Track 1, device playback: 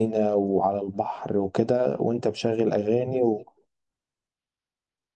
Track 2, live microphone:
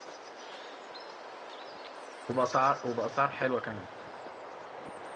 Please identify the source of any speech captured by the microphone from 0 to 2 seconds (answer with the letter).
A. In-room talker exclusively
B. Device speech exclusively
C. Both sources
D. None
D